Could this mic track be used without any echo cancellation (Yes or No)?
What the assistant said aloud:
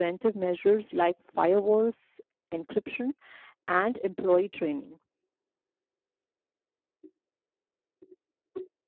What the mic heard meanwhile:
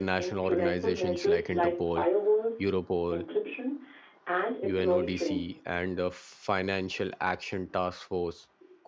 No